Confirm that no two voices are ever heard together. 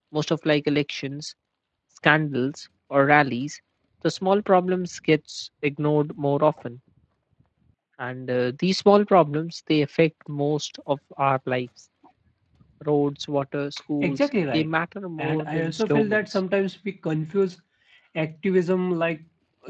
No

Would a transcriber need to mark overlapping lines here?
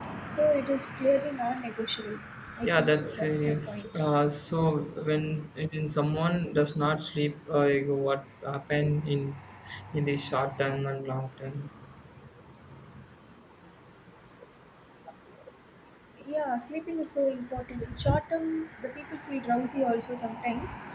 Yes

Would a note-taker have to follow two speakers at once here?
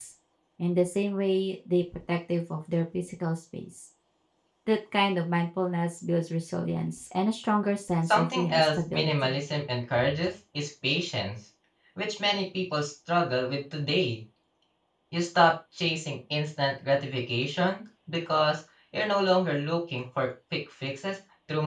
Yes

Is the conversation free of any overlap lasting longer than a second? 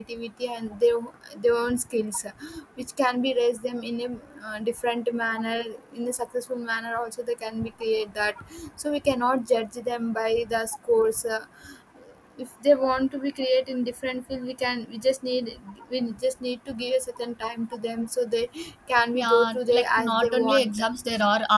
No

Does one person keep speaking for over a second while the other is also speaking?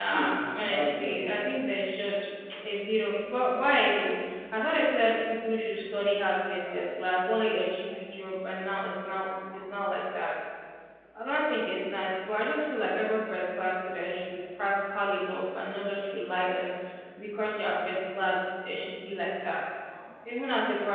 Yes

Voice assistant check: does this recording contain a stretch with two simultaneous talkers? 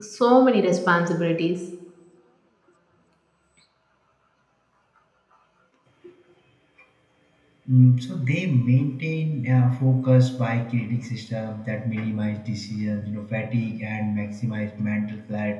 No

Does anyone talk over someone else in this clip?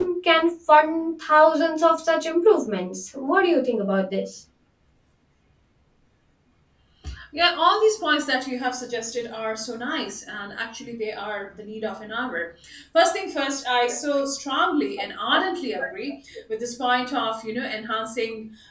No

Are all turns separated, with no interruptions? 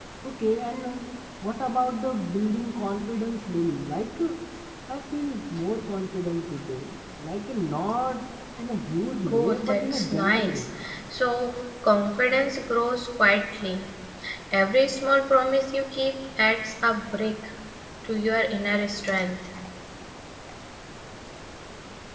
No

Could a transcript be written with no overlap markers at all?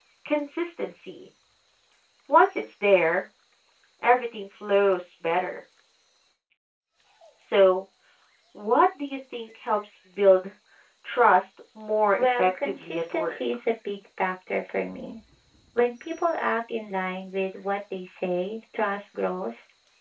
No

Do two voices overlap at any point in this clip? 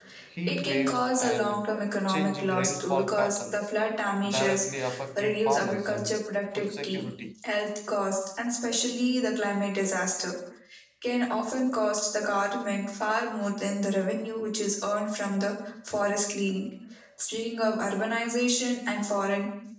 Yes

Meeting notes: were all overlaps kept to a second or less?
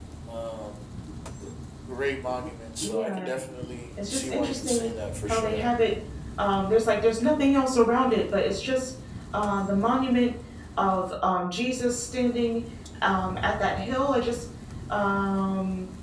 No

